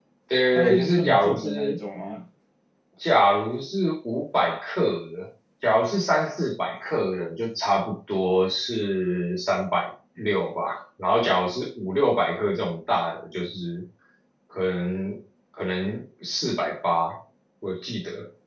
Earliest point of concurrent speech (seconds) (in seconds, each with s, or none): 0.6 s